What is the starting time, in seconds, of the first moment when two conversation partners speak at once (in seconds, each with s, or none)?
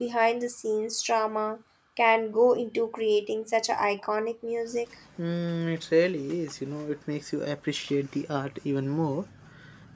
none